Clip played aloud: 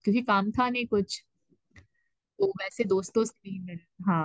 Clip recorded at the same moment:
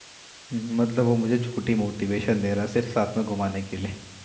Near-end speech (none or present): present